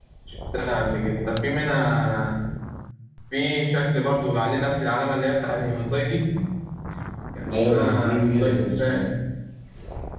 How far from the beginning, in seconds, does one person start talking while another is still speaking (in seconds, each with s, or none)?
7.5 s